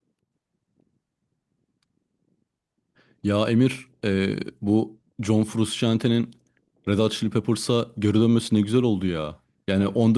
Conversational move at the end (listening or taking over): listening